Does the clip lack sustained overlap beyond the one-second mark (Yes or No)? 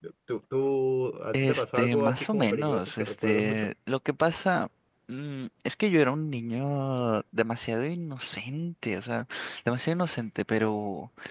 No